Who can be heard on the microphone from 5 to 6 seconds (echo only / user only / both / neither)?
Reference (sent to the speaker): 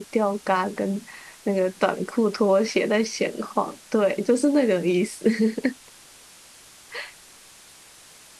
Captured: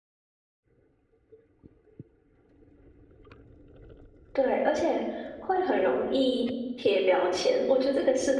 user only